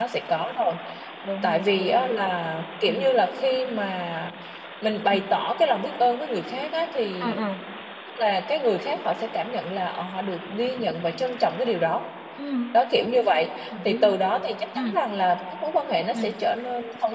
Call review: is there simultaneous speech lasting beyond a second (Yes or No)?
No